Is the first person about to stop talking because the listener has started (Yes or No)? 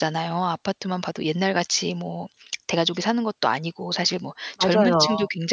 No